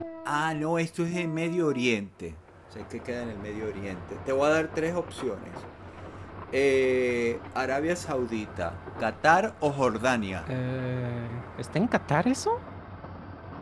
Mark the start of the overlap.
none

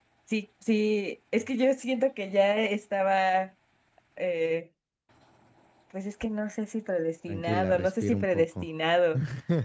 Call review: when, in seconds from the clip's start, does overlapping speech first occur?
7.3 s

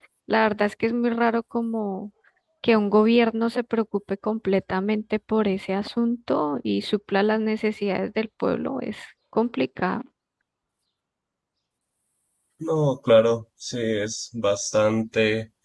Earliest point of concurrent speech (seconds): none

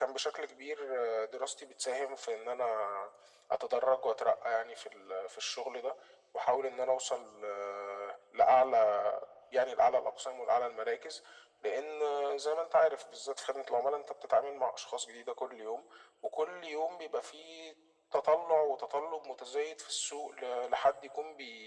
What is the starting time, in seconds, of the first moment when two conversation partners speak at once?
none

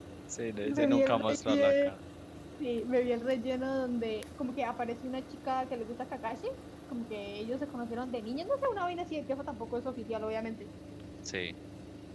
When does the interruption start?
0.6 s

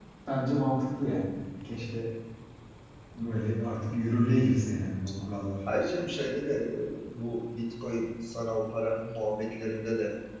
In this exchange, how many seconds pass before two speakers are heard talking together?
none

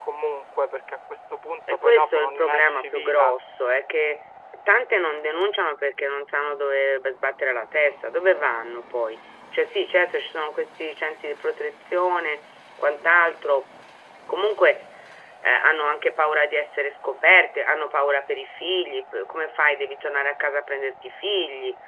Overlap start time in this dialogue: 1.7 s

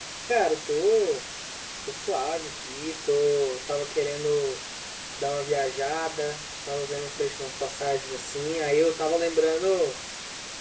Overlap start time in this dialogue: none

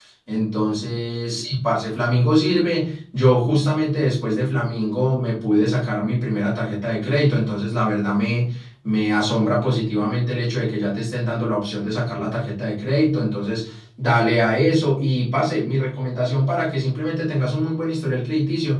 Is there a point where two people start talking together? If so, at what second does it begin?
none

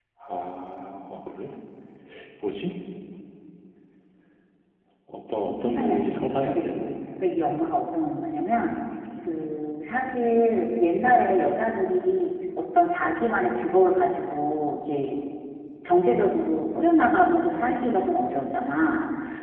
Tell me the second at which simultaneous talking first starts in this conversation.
5.6 s

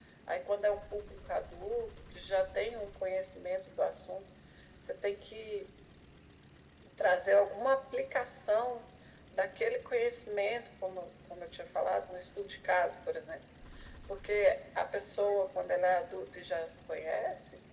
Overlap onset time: none

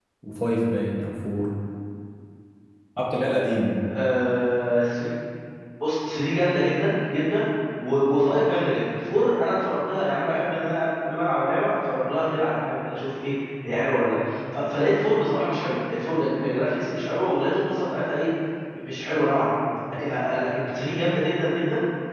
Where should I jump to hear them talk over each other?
none

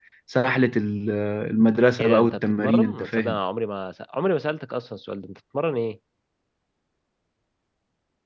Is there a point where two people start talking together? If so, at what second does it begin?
2.0 s

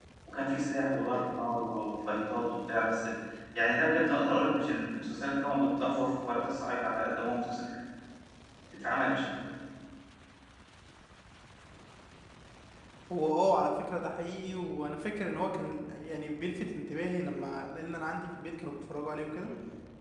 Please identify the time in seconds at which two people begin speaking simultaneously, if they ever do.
none

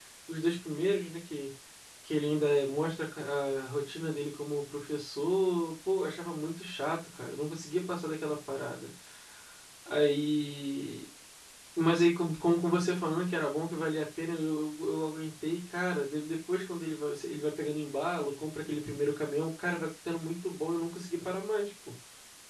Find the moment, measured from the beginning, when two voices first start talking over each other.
none

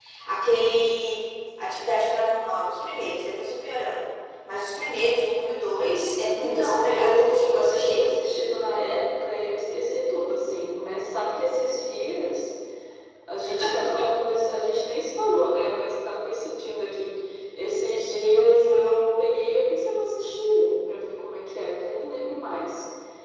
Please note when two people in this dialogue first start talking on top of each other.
6.3 s

